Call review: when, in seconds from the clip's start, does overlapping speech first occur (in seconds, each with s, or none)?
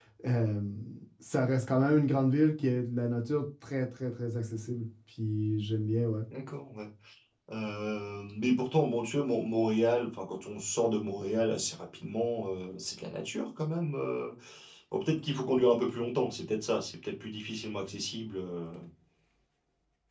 none